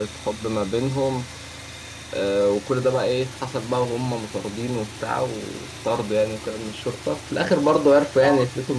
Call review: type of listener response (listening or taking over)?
listening